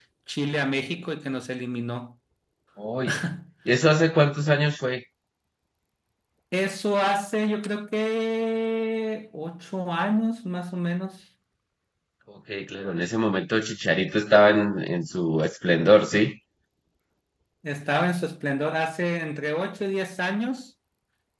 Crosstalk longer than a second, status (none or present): none